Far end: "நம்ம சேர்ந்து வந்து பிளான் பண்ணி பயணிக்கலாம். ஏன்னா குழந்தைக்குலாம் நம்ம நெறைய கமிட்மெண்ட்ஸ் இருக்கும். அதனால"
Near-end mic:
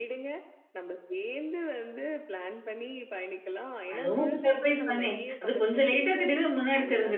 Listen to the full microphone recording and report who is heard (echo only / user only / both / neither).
both